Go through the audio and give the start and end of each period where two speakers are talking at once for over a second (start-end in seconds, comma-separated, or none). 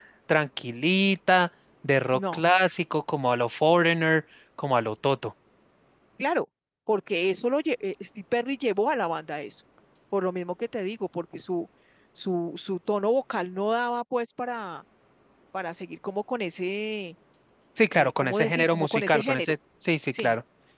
17.9-19.5